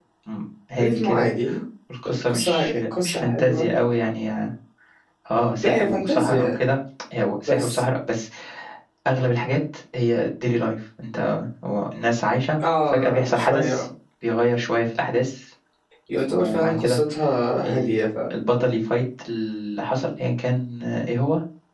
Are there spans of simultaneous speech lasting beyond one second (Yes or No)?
Yes